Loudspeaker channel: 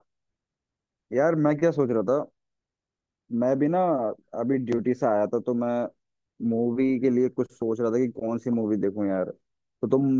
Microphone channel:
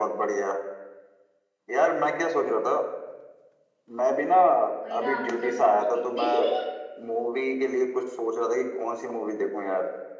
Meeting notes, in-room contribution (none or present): present